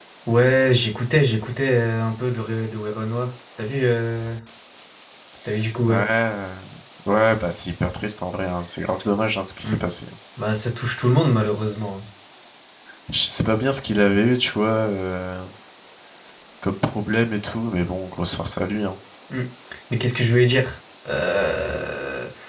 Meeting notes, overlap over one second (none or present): none